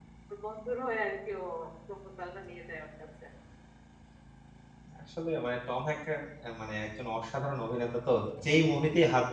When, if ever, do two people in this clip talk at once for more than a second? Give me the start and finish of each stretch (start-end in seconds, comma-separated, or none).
none